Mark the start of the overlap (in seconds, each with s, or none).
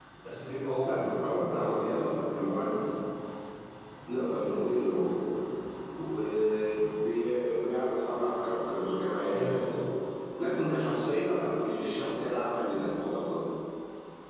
0.8 s